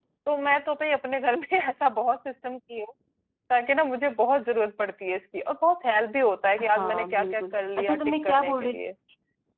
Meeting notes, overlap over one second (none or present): present